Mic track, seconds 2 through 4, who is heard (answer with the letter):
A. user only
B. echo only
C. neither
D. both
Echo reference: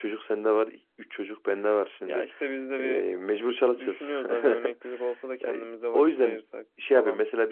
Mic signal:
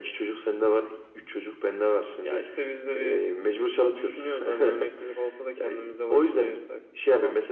B